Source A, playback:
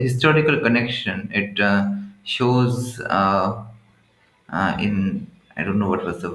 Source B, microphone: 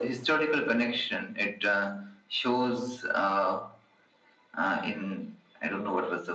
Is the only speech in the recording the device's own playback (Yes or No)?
Yes